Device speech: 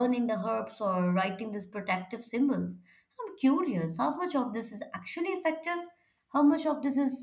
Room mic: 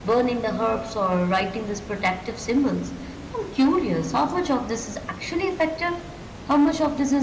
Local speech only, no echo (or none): none